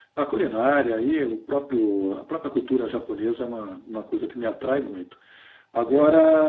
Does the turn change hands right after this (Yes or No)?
No